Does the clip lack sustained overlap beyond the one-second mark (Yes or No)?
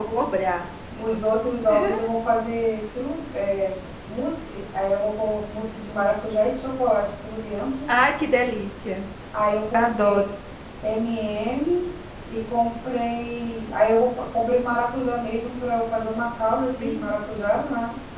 Yes